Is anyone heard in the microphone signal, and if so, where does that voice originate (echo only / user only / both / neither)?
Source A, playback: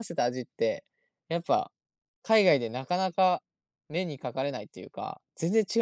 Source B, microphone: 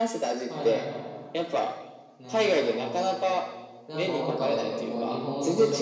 both